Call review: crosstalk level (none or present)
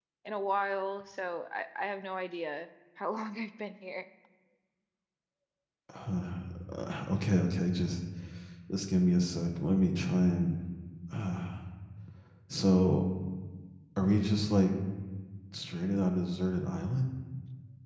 none